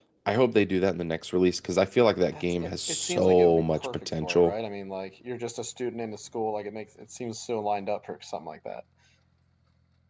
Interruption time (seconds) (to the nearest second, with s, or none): 2 s